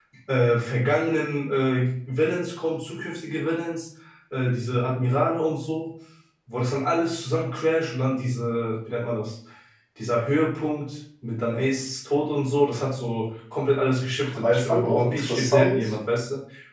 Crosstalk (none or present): present